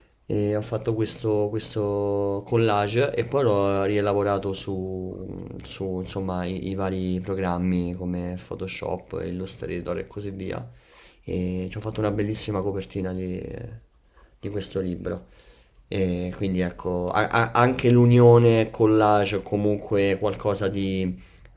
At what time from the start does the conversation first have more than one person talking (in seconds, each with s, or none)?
none